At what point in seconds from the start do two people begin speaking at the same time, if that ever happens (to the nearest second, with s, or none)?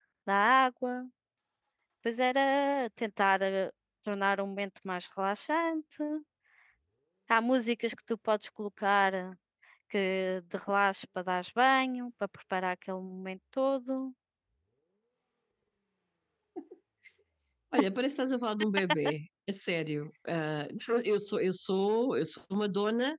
none